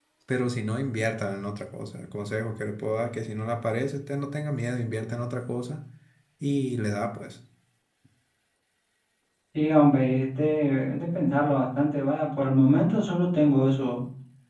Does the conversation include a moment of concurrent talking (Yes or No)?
No